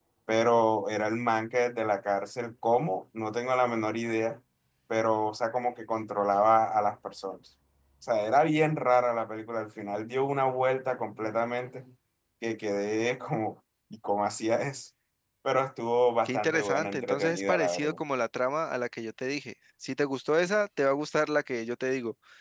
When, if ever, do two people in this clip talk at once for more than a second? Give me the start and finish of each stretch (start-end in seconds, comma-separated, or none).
16.2-18.0